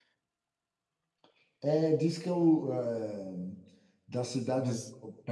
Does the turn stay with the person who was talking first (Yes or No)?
Yes